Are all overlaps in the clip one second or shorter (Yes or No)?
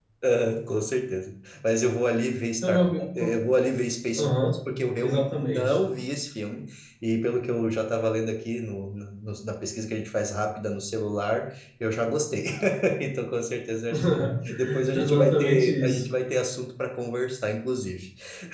No